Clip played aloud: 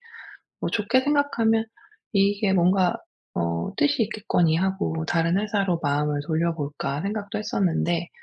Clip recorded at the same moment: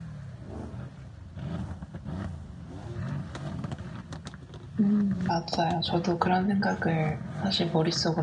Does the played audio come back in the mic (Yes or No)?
No